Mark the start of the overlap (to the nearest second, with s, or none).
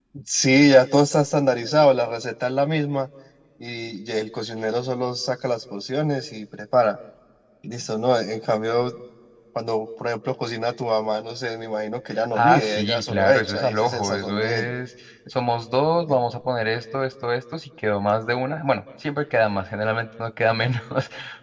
12 s